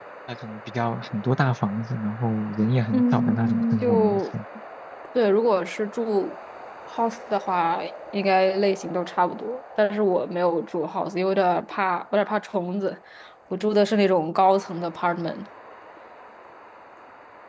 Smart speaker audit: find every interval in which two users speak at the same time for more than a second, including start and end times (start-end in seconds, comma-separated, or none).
2.9-4.2